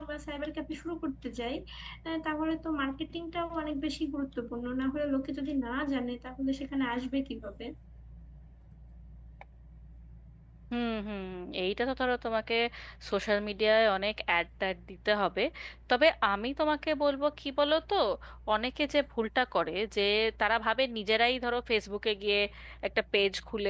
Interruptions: none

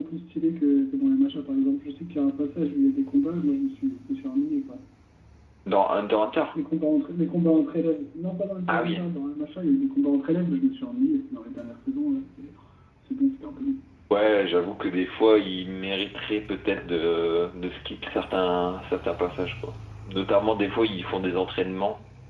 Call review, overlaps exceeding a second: none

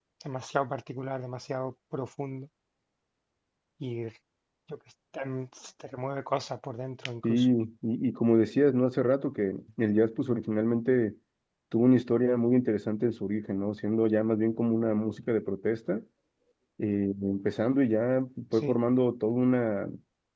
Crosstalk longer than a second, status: none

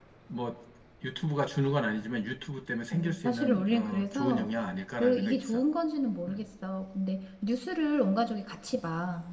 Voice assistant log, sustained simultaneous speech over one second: present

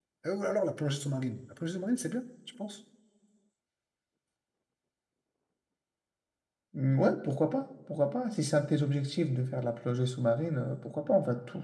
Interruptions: none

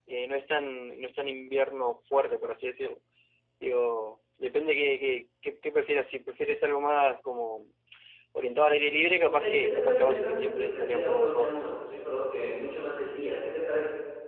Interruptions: present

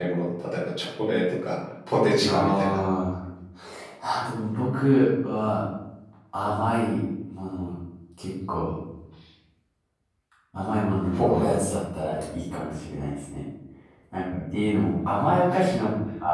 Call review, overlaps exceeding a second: none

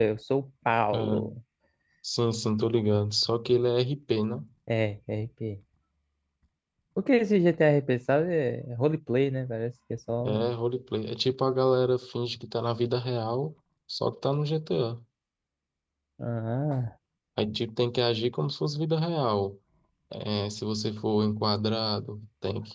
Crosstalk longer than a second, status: none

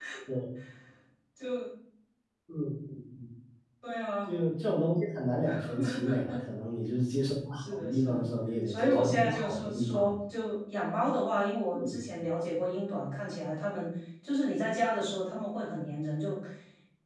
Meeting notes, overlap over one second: present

